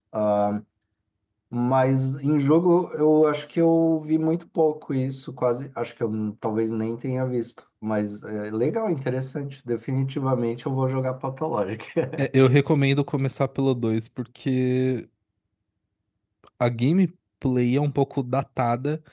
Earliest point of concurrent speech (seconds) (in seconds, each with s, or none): none